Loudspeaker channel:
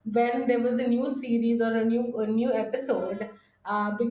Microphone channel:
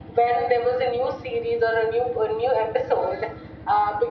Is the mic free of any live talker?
Yes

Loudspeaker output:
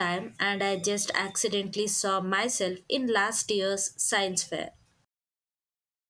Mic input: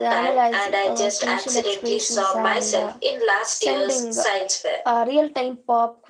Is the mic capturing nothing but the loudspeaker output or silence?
No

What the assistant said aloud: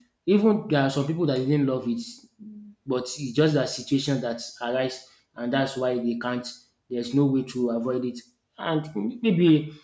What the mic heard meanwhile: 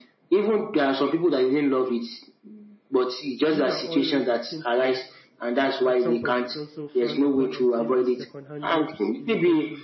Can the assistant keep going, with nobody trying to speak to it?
No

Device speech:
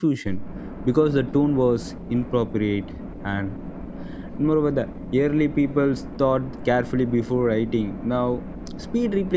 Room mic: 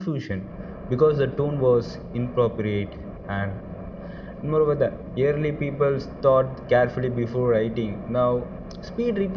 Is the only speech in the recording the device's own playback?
Yes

